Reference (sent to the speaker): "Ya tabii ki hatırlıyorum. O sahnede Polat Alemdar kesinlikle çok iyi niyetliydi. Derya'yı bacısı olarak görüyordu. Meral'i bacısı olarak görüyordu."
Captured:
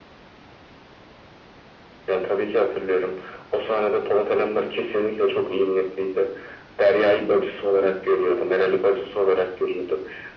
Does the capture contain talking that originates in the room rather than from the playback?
No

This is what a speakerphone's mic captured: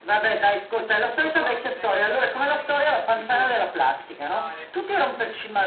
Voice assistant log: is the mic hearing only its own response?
No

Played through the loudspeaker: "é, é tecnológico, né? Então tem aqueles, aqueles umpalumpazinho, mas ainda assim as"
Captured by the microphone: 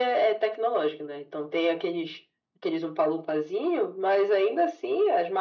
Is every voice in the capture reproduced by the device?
Yes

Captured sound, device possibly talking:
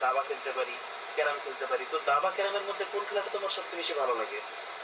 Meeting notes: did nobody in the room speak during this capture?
Yes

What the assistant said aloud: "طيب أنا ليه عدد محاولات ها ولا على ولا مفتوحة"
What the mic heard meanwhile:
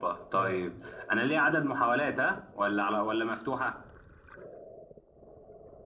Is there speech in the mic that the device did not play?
Yes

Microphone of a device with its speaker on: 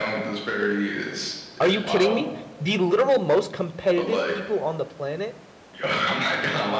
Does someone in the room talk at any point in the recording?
Yes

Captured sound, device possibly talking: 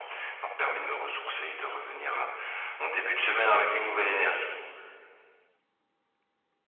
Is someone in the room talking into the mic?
No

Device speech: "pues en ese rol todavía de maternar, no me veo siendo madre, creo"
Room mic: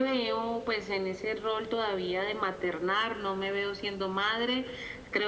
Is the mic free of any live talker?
Yes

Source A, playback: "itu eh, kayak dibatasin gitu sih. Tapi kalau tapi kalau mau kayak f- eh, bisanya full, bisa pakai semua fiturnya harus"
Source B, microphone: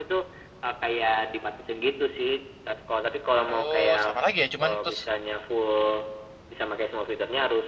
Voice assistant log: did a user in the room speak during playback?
Yes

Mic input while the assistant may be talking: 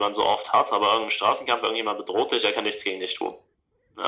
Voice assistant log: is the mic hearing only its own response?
Yes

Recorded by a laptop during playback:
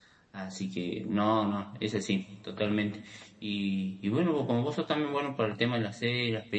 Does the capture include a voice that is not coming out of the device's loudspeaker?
Yes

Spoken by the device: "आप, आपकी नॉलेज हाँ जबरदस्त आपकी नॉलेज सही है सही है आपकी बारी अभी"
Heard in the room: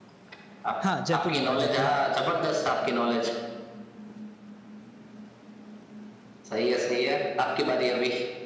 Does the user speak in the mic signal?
Yes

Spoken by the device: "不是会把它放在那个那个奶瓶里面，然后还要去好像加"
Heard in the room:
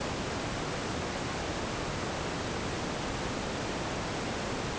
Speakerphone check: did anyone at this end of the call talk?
No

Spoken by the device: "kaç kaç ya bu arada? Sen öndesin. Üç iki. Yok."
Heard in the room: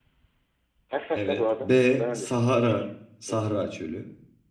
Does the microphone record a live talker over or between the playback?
Yes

